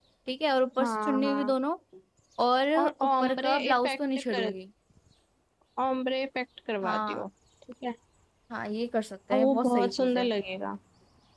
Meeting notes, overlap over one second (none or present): present